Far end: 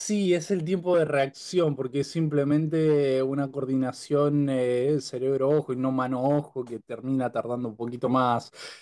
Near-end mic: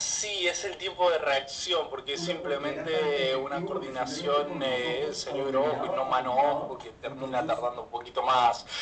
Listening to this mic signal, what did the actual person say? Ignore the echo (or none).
una porque era tan efectivo, porque simplemente con los ojos a donde miraba apuntaba, entonces...